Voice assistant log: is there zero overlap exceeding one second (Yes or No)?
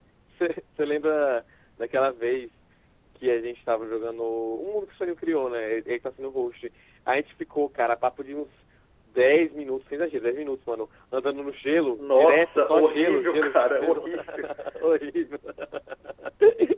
No